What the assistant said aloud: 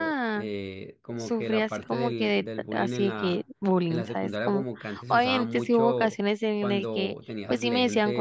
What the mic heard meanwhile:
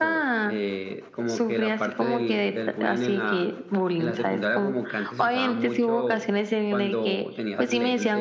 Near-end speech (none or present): none